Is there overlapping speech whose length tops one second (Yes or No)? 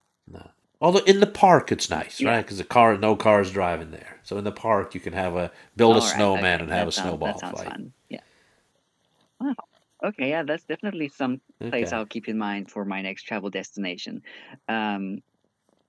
Yes